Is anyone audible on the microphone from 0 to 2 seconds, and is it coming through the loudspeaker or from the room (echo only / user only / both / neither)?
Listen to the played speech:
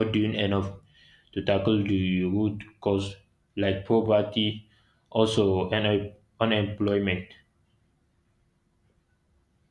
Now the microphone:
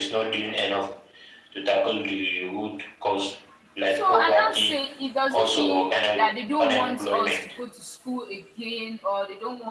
echo only